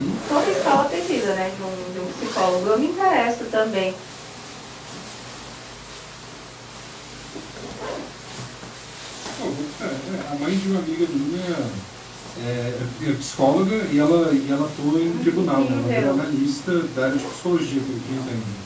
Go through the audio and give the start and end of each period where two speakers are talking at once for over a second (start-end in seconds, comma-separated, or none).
15.0-16.2